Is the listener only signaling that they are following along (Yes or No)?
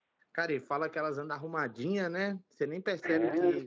No